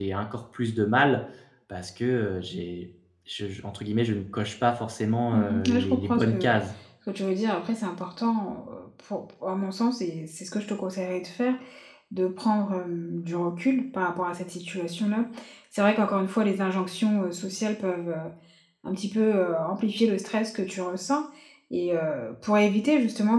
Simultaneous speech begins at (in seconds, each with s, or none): 5.3 s